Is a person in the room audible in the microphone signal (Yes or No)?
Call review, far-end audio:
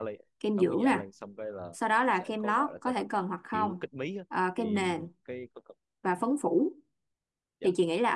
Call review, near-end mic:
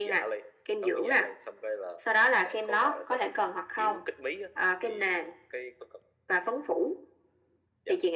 No